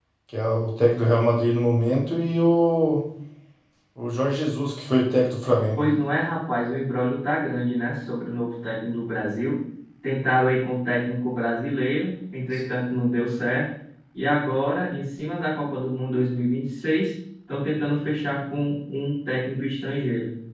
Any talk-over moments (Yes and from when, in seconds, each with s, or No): No